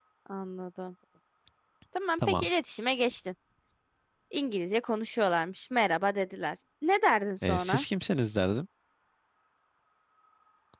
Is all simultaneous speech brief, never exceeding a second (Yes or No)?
Yes